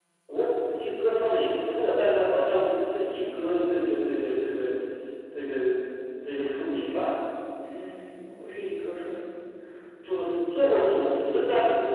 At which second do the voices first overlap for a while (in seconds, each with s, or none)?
none